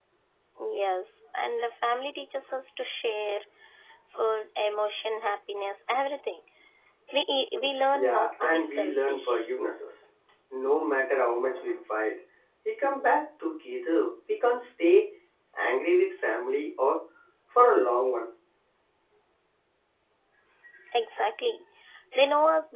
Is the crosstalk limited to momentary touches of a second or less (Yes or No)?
No